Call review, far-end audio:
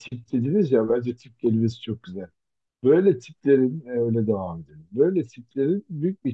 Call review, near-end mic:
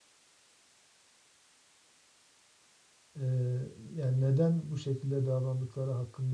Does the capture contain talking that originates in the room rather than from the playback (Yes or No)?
Yes